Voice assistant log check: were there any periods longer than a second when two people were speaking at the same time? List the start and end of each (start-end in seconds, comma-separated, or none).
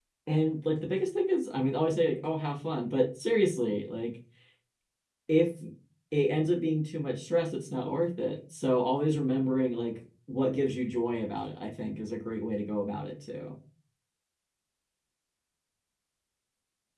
none